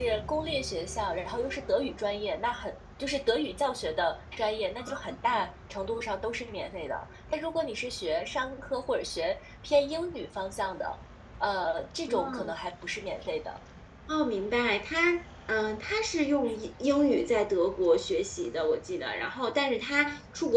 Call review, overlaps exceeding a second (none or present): none